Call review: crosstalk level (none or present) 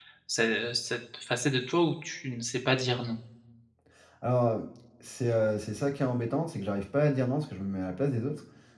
none